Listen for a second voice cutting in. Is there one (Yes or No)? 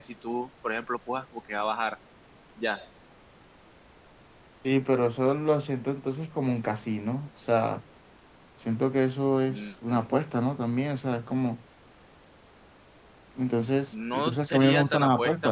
Yes